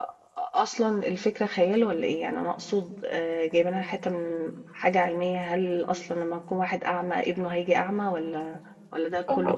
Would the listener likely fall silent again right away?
No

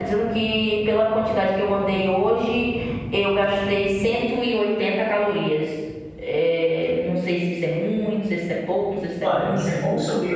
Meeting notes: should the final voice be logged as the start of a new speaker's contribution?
Yes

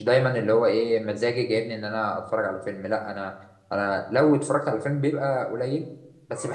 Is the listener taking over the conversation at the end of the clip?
No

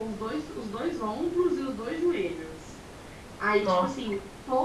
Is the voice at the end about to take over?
No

